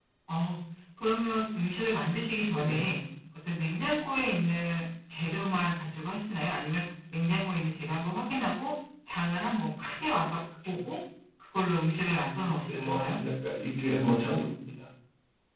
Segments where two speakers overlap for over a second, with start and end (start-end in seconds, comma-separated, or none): none